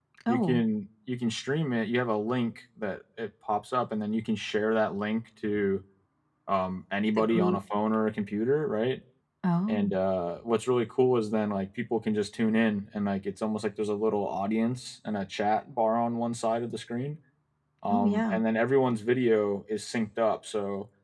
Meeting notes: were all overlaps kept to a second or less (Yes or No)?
Yes